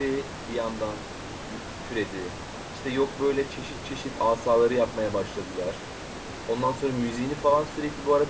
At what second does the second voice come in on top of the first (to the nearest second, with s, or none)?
none